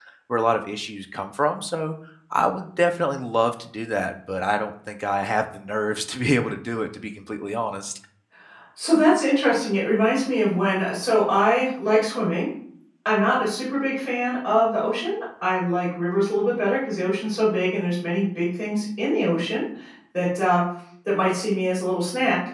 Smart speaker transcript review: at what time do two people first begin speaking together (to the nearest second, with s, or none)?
none